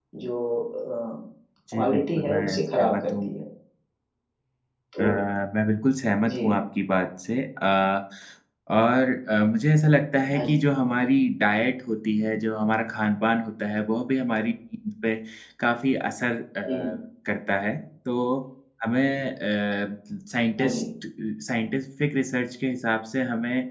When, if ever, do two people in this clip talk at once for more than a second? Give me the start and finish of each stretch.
1.7-3.3

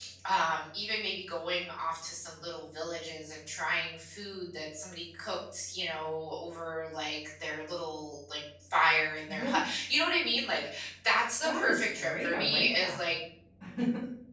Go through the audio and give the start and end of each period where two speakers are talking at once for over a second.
11.4-13.0

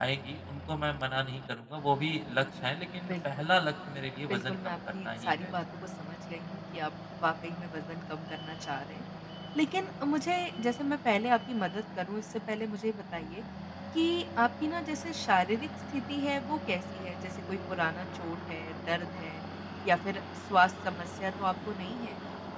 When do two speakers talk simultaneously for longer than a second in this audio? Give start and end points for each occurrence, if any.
4.3-5.5

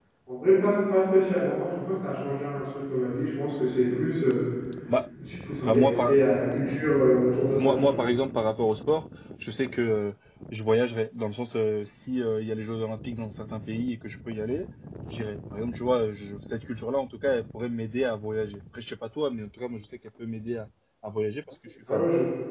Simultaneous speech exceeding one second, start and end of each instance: none

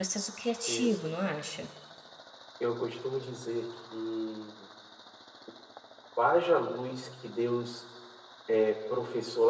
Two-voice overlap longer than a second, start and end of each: none

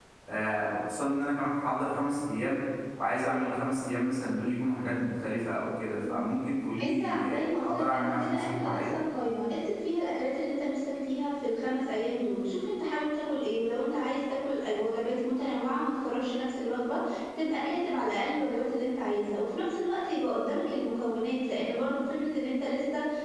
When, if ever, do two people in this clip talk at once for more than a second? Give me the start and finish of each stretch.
6.8-8.8

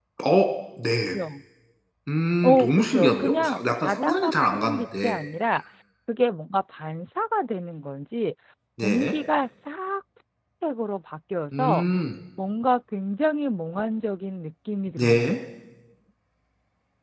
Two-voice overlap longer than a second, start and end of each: 2.4-5.2

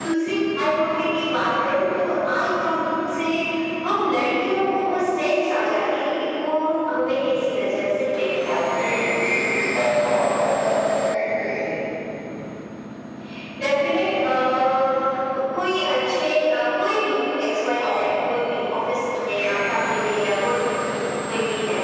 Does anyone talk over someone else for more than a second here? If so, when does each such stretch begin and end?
none

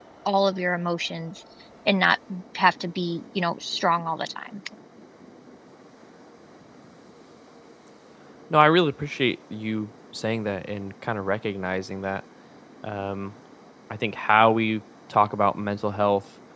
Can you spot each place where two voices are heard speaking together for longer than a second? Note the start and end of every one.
none

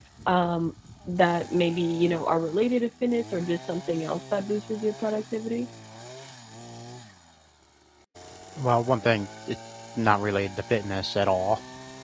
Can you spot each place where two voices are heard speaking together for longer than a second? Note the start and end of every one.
none

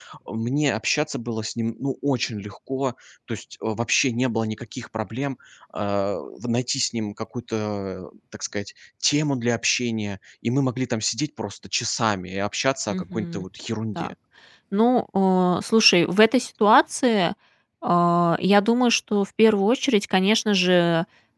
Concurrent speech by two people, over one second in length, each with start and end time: none

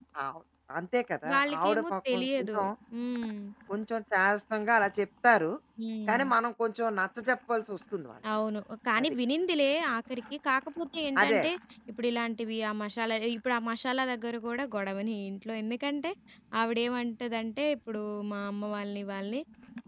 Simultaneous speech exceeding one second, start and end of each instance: 1.3-2.6

